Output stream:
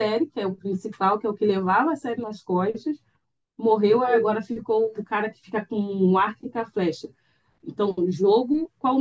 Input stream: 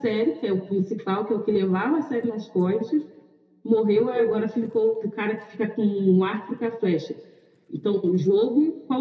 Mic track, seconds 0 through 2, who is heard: echo only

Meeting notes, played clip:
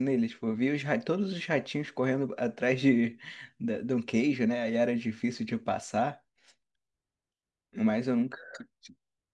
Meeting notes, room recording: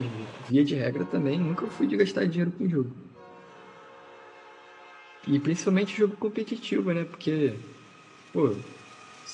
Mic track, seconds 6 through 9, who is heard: user only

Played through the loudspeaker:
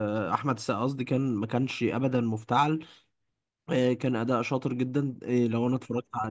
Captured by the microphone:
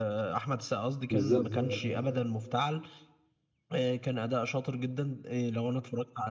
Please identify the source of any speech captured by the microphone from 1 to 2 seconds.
both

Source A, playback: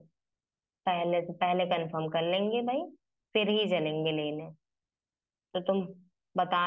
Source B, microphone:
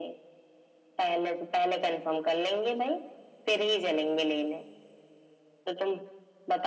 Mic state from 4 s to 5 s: echo only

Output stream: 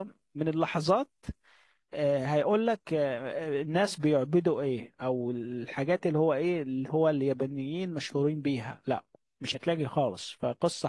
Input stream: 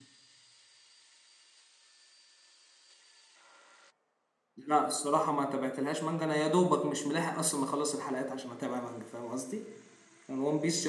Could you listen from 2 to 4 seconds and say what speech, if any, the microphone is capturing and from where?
neither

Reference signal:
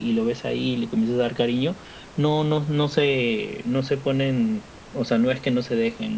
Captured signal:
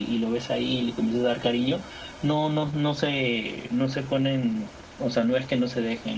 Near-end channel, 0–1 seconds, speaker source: echo only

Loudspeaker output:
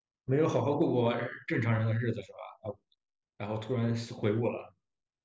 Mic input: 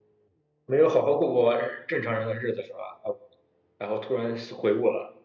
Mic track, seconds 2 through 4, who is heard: echo only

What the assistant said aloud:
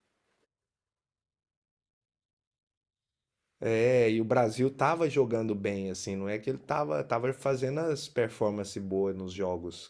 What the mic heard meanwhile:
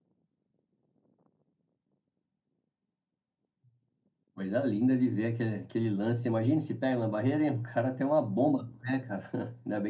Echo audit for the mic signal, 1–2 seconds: neither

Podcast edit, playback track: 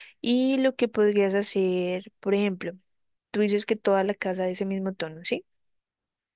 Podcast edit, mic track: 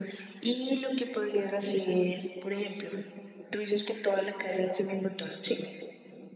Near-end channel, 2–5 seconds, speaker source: echo only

